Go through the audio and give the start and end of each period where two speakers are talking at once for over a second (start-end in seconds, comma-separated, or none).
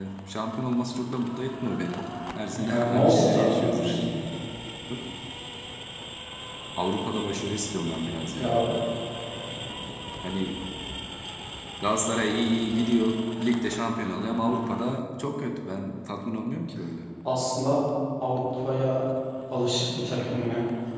2.5-4.0